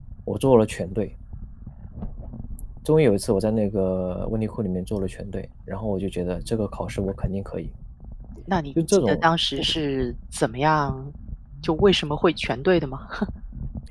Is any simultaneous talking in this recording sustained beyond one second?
No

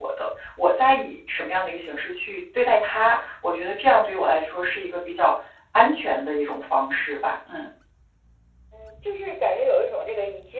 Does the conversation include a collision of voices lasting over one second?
No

